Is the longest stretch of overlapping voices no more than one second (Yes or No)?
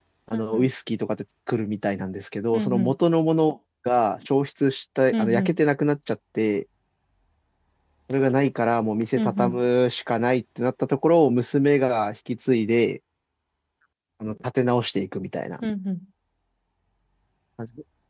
Yes